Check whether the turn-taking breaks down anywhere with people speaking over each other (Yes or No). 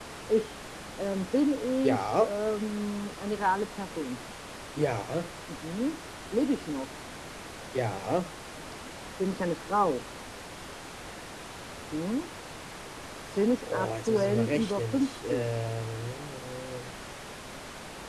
Yes